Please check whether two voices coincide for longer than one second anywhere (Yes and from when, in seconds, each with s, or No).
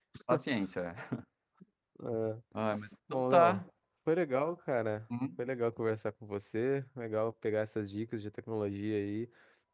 No